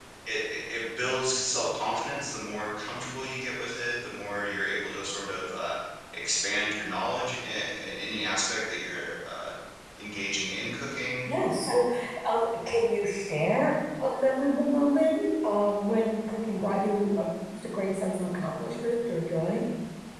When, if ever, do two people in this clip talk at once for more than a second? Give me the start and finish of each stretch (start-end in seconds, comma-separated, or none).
none